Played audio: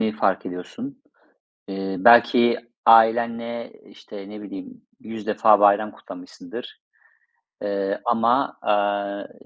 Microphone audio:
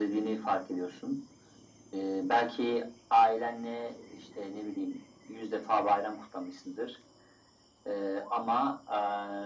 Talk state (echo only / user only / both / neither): echo only